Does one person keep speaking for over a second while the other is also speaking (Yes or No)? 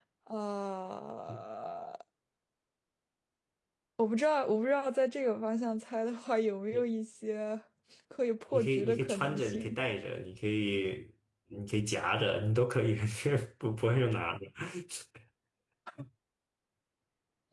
Yes